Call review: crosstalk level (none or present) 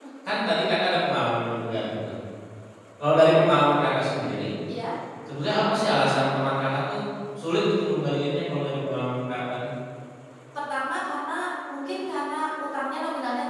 none